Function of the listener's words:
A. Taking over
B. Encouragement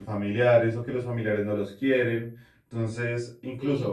A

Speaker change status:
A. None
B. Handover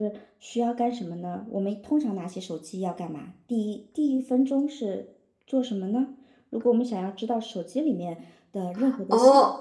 B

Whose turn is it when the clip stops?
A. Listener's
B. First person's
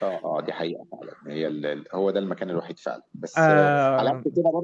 B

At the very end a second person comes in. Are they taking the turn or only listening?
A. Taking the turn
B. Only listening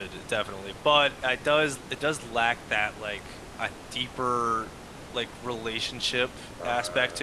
B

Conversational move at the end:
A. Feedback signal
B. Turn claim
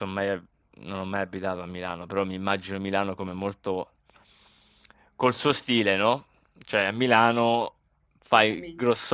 A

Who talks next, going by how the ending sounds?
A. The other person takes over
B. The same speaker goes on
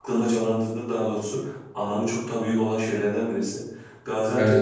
B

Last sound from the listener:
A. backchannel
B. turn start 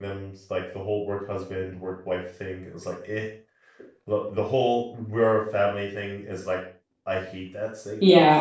B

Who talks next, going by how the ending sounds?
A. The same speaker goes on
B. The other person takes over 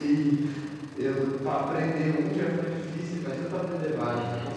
B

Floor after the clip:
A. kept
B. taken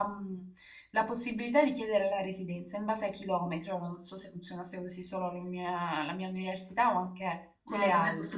B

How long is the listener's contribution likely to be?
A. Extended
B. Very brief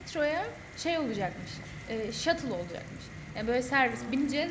B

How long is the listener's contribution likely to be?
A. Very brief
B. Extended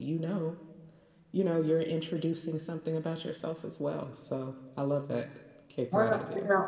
B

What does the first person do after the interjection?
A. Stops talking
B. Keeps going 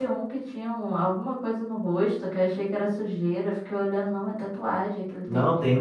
A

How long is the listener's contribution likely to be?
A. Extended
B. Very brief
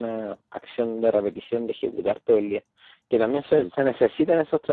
B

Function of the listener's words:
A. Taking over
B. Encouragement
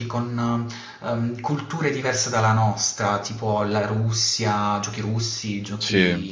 B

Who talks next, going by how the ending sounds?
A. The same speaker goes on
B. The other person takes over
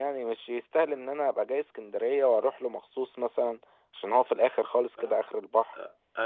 B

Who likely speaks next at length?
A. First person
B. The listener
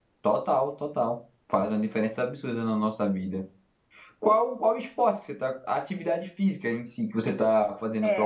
B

